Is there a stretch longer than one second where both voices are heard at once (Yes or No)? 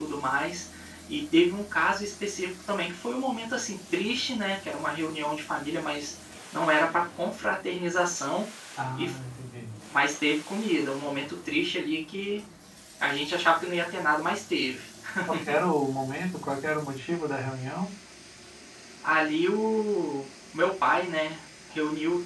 No